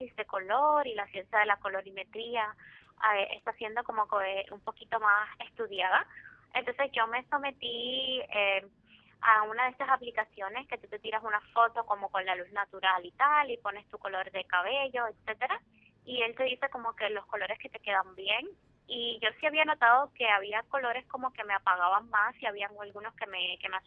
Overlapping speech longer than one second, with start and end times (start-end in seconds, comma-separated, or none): none